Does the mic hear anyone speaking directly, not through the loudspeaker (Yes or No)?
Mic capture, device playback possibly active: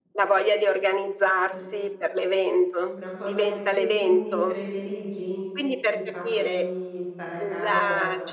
Yes